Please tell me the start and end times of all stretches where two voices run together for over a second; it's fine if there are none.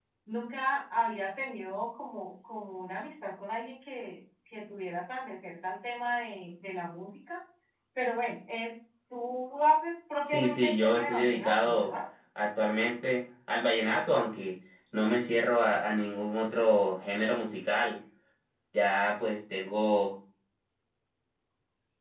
10.2-11.9

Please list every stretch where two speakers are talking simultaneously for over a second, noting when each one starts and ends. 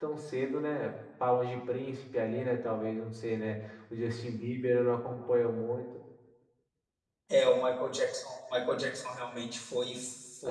none

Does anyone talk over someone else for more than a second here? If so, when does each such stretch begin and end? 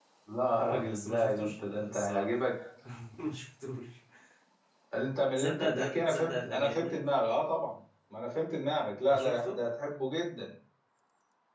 0.7-2.3, 5.4-7.0

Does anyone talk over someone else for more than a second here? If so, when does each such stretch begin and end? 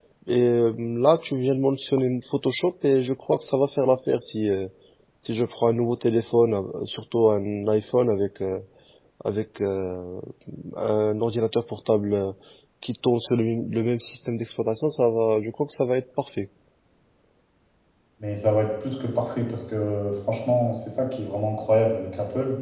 none

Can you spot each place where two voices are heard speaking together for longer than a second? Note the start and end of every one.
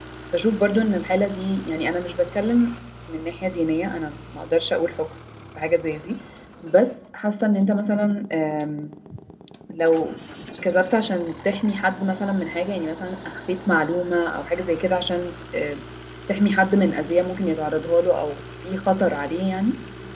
none

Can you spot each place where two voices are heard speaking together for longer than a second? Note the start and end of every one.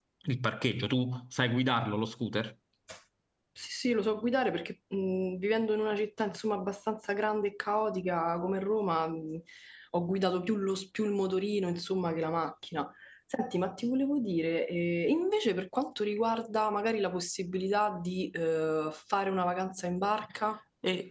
none

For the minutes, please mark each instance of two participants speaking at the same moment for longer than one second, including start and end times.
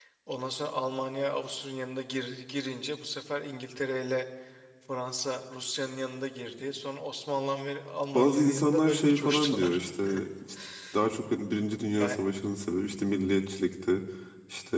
8.1-9.8

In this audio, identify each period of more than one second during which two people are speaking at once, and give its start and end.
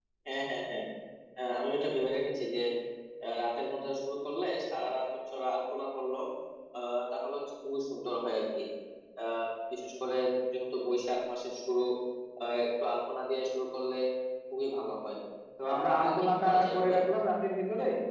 15.7-17.0

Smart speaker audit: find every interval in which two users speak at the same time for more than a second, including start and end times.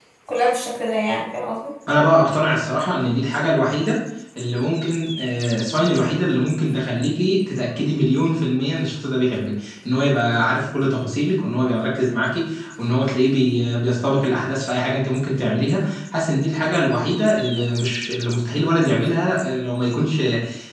none

